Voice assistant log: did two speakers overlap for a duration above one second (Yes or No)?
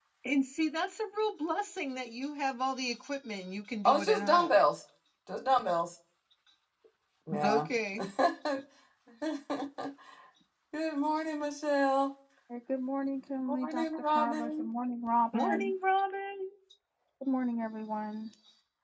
Yes